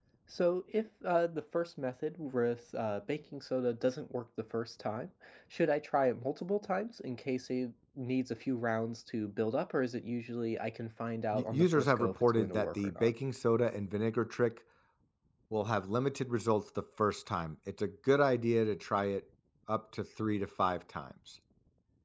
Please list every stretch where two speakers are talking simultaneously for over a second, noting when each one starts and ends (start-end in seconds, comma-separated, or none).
11.3-13.1